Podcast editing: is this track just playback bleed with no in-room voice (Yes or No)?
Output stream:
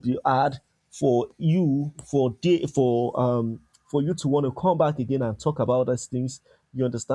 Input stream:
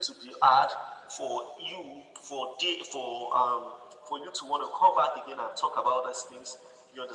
Yes